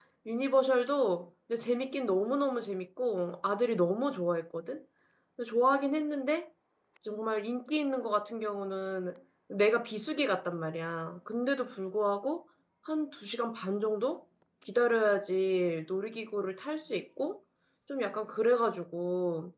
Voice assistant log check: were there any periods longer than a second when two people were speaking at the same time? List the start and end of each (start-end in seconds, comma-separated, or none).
none